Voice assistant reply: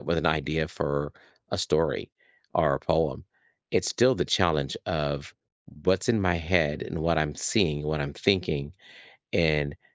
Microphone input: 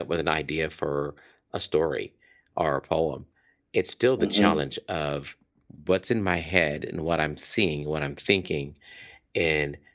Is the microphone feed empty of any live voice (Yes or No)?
No